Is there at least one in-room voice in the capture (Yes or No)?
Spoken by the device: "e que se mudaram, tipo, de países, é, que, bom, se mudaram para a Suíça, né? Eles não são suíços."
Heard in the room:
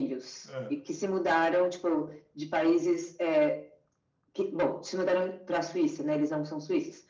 Yes